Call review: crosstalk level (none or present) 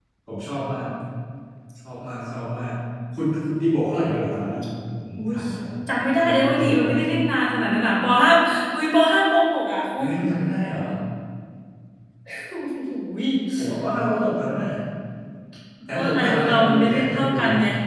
present